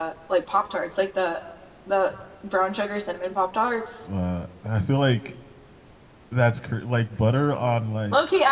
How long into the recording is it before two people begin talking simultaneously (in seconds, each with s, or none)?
none